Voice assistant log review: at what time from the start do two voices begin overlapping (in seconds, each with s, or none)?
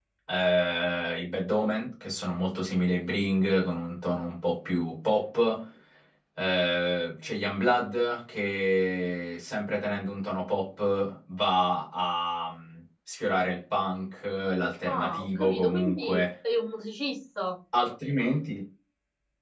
14.8 s